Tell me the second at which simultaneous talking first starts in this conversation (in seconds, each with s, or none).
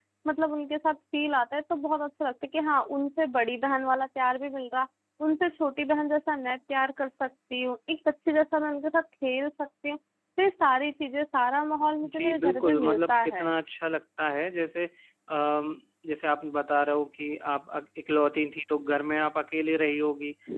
12.0 s